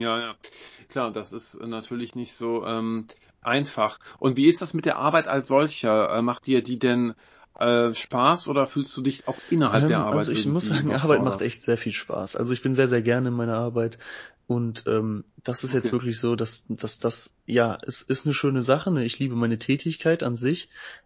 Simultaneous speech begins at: 10 s

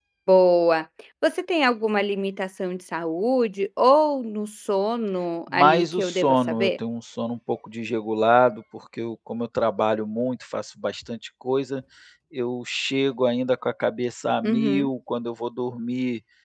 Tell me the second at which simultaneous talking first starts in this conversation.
5 s

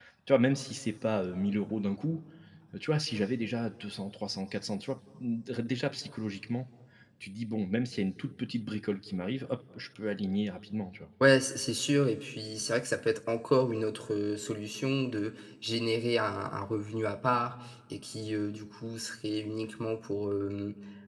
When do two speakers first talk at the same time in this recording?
none

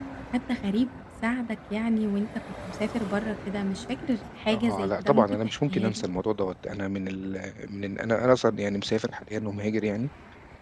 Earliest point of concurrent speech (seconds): 4 s

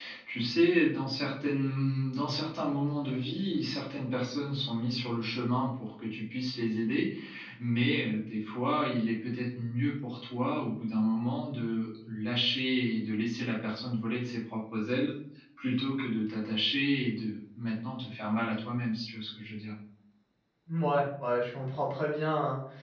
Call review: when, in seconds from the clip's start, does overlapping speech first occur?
none

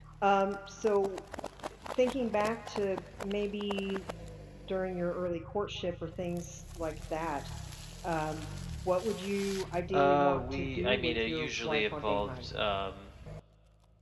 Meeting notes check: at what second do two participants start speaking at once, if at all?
10 s

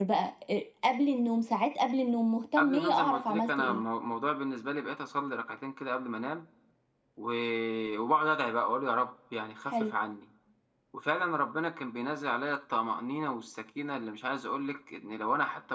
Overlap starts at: 3 s

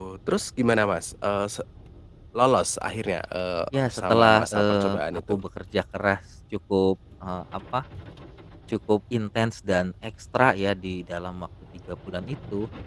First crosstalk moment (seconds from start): 4 s

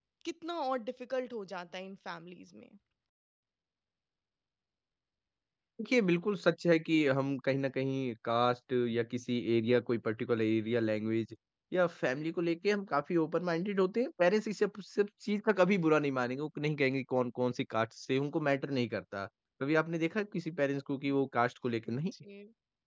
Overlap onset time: none

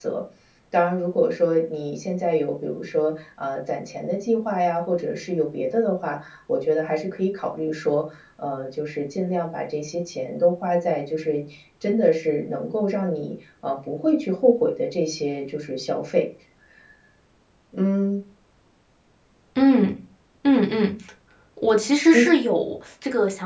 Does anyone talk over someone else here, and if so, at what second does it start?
none

